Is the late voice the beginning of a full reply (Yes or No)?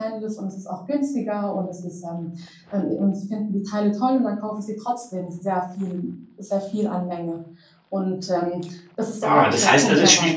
Yes